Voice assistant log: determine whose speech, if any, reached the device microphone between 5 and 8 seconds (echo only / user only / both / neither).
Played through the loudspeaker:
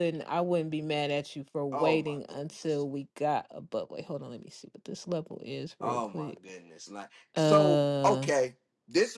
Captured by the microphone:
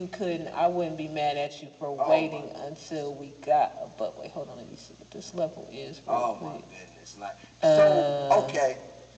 echo only